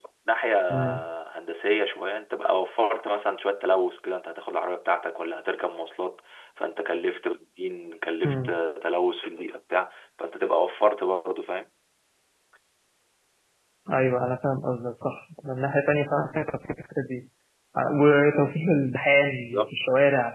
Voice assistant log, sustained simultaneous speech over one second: none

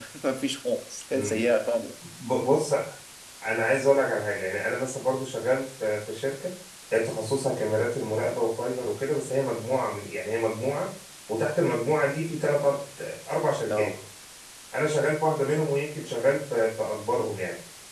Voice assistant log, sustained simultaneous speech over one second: none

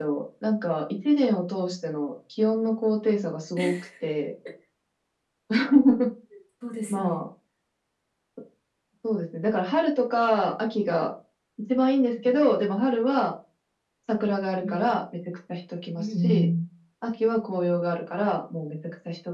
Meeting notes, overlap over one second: none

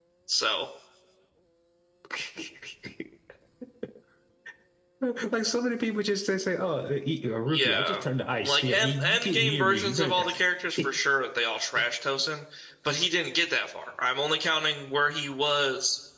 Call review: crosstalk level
present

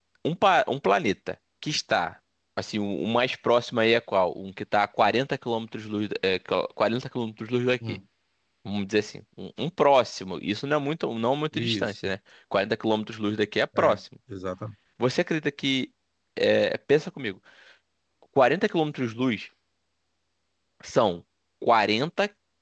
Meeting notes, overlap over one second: none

